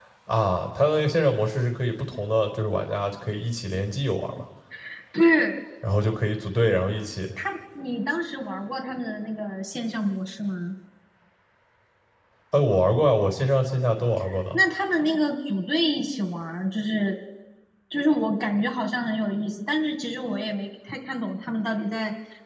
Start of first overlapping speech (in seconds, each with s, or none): none